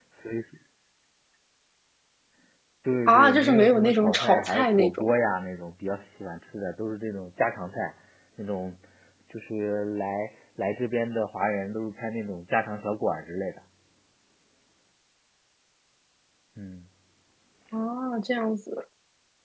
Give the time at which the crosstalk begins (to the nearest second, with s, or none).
3 s